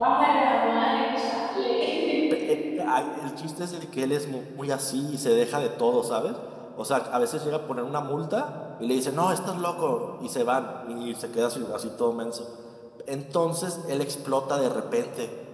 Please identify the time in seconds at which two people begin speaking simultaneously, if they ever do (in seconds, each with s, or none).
none